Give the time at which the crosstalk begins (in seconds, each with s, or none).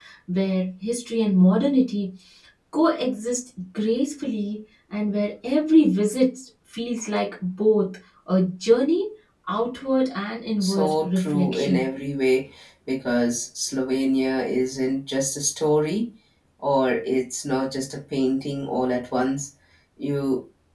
10.6 s